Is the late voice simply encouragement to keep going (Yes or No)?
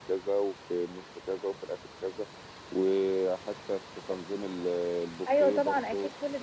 No